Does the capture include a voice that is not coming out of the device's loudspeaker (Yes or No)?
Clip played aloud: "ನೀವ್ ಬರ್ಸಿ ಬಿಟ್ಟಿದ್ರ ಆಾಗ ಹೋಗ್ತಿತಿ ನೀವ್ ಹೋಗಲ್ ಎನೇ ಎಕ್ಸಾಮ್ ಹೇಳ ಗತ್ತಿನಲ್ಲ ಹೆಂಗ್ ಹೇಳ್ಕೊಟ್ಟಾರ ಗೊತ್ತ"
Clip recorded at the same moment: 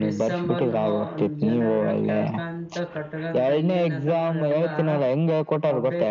Yes